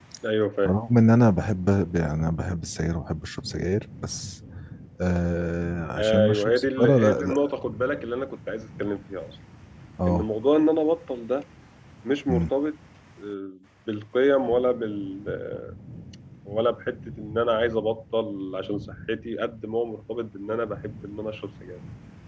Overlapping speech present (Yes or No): Yes